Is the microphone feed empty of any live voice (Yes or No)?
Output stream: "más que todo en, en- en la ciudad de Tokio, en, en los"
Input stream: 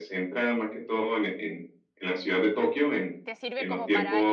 No